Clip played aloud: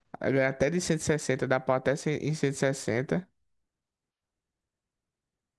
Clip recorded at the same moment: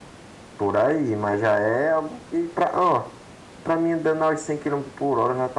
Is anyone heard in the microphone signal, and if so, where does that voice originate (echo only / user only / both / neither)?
user only